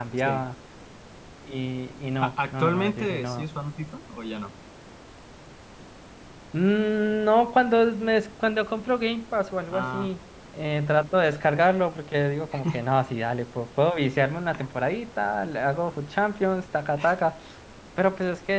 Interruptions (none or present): present